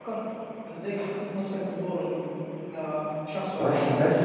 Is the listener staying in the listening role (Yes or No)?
Yes